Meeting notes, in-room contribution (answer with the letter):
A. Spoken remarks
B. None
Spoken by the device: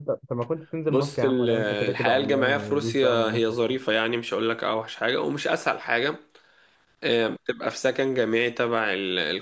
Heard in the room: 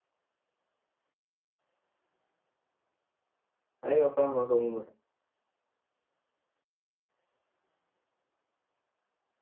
A